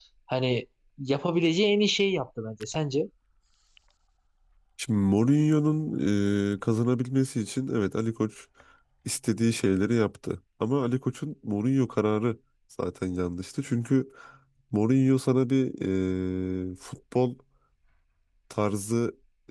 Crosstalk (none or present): none